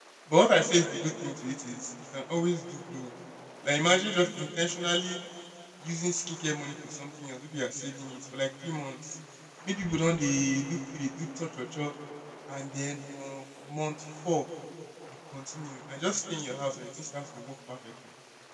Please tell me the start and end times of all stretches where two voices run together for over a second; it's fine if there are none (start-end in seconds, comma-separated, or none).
none